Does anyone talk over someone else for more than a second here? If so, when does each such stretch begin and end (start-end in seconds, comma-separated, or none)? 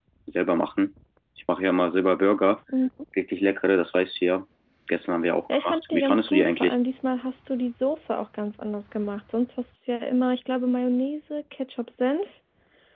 5.5-6.8